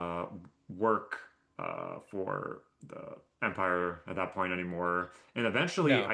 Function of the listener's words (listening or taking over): listening